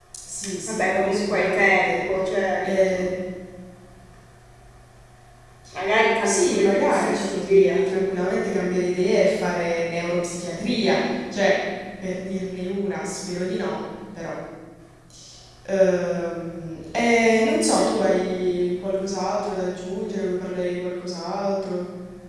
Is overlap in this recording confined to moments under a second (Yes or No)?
No